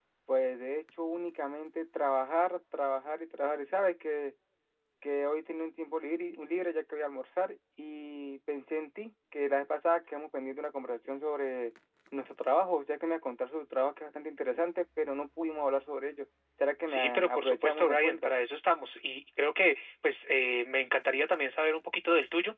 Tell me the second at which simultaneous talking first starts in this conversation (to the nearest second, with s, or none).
17 s